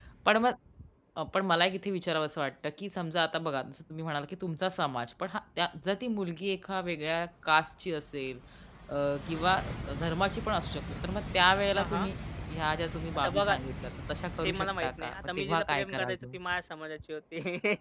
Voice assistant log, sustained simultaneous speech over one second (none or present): present